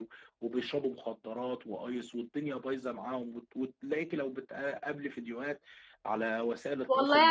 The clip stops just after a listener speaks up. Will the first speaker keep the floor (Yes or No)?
No